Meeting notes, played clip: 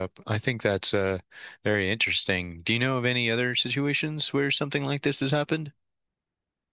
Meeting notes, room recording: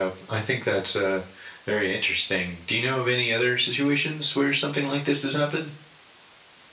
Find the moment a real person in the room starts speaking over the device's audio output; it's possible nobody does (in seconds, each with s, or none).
none